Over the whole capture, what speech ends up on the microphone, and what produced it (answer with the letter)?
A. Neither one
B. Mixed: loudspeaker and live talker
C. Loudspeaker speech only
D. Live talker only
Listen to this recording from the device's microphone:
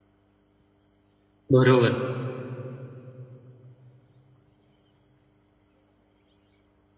D